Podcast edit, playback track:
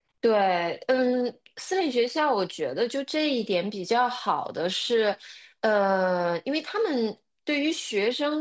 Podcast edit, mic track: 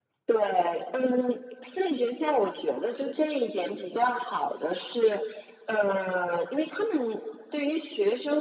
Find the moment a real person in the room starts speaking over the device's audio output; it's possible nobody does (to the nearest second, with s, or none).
none